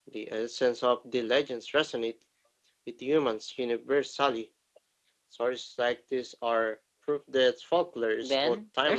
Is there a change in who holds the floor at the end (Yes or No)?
Yes